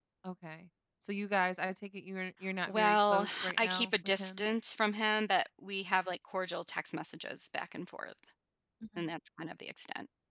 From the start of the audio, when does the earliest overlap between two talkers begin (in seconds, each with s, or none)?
2.7 s